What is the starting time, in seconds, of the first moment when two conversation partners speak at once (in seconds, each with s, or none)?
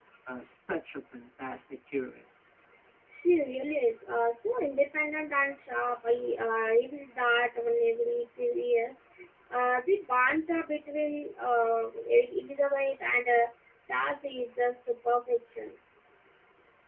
none